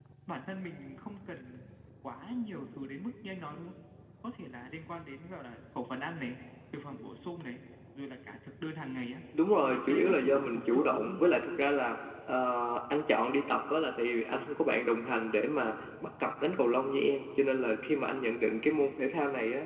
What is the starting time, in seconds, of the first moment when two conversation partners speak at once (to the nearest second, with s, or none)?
10 s